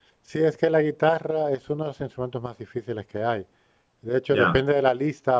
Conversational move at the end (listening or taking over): listening